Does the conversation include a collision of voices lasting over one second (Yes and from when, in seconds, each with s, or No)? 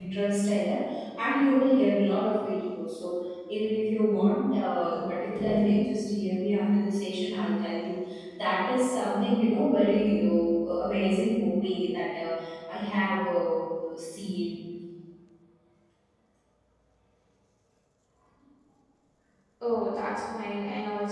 No